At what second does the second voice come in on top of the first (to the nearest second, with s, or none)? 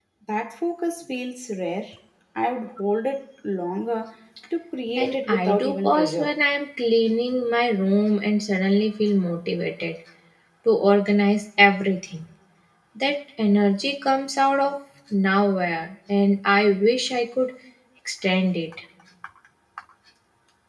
5 s